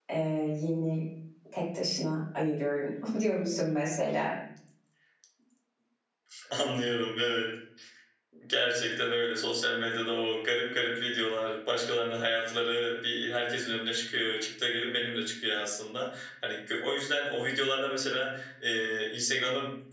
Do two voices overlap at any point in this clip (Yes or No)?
No